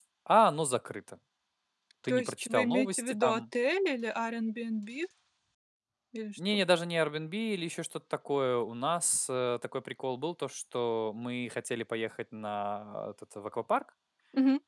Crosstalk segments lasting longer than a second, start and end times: 2.1-3.4

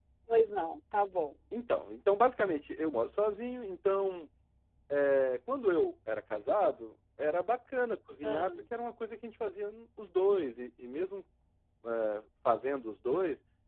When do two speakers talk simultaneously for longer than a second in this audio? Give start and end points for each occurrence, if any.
none

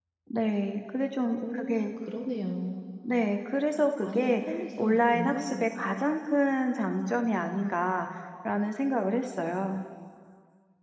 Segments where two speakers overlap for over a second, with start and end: 4.0-5.7

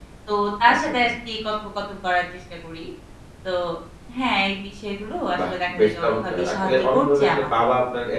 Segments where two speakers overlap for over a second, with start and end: 5.5-7.5

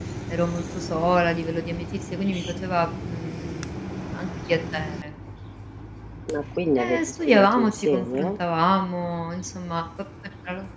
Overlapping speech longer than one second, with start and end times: 6.8-8.3

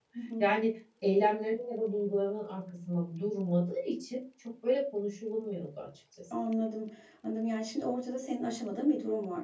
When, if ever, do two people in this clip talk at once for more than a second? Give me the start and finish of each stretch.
none

